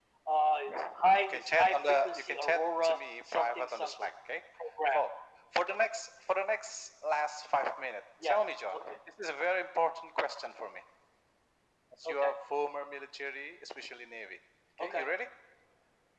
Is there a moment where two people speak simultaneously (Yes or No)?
Yes